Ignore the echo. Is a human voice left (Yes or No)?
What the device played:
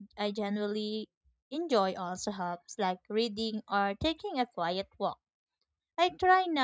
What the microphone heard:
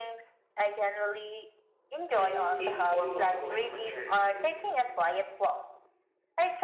Yes